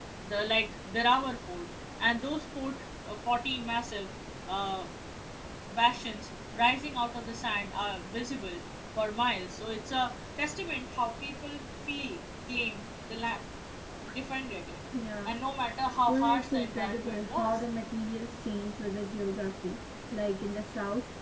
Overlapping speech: Yes, from 16.1 s

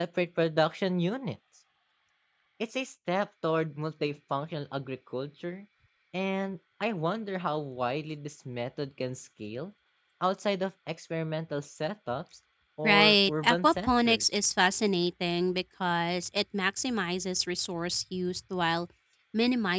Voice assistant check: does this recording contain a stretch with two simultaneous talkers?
Yes, from 12.8 s

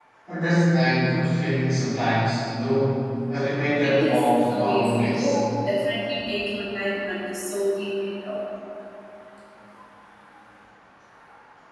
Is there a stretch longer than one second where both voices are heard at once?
Yes, from 3.8 s

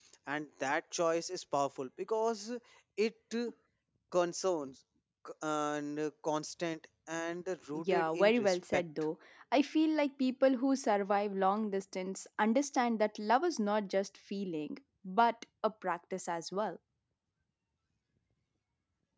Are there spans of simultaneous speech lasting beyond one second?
Yes, from 7.7 s

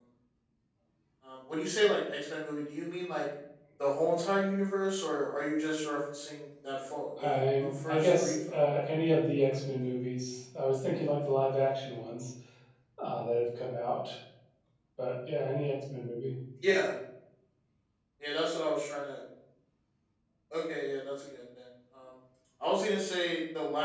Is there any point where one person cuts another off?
Yes, from 7.2 s

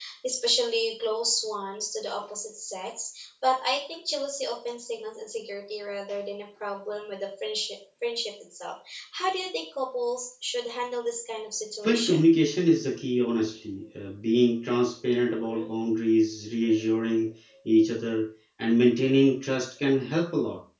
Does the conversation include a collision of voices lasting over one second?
No

